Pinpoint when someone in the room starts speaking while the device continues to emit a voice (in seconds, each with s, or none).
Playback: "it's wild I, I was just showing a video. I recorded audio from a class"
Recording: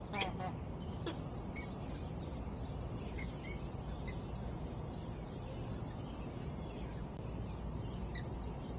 none